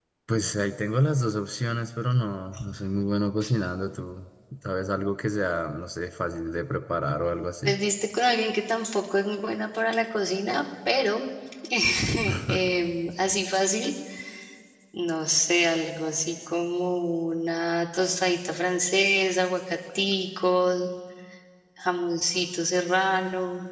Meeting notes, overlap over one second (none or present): none